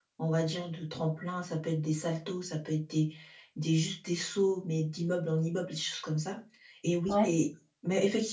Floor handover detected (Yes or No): No